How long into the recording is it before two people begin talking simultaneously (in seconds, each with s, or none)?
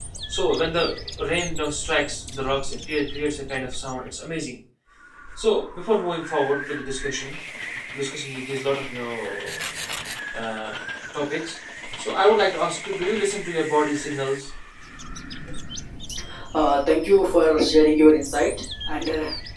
none